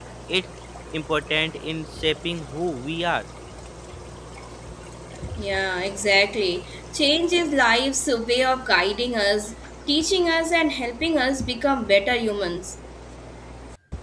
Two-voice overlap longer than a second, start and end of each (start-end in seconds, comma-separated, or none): none